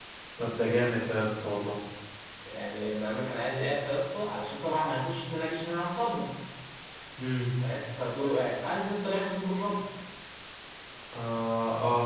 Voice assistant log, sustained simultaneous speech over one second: none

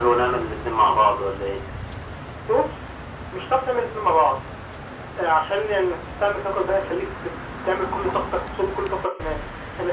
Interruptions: none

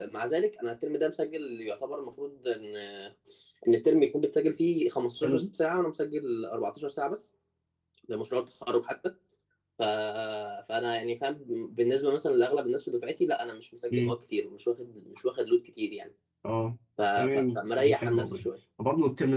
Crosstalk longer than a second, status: present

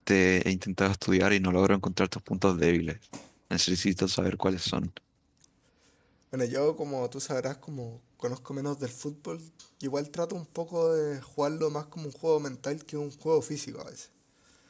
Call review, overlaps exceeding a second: none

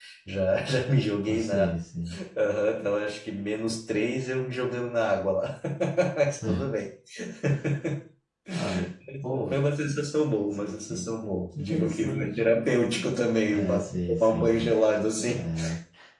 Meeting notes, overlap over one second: present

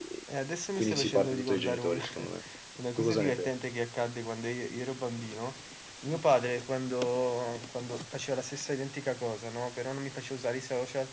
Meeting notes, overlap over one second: present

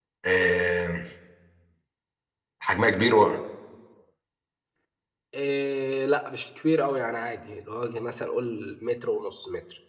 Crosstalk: none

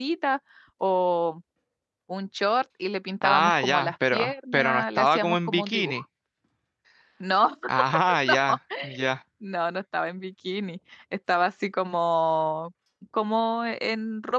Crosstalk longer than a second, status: present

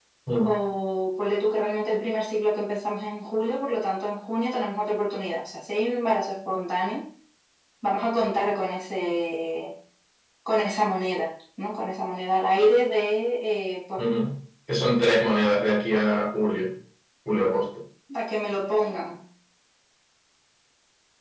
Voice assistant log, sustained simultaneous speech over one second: none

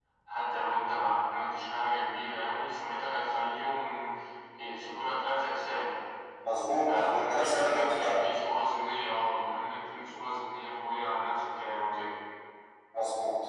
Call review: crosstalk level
present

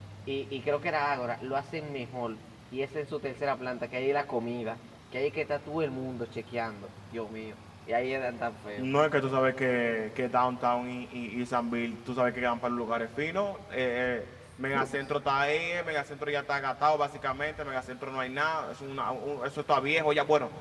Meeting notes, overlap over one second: none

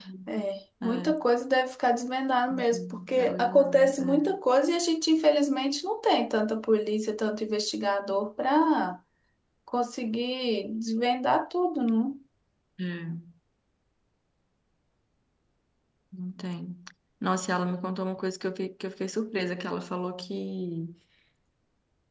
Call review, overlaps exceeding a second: present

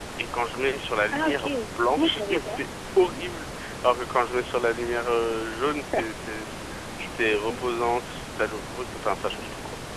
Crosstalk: present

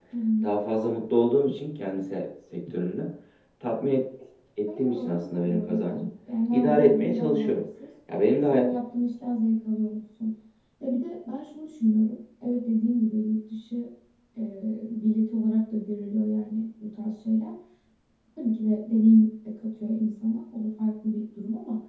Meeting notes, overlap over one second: present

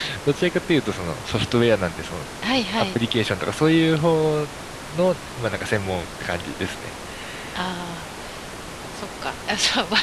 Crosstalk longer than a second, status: none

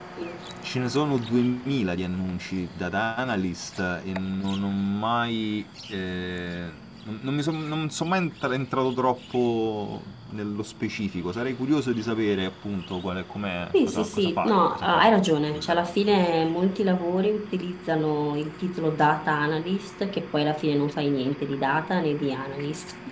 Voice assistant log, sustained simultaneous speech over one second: present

